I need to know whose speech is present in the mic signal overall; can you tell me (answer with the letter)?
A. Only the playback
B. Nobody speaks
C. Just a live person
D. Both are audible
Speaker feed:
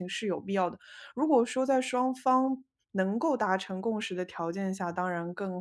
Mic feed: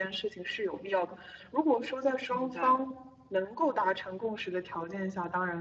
D